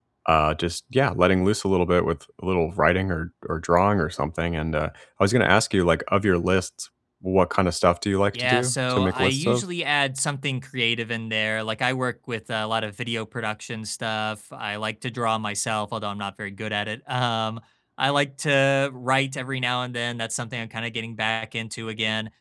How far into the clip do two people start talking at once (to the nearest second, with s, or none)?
8 s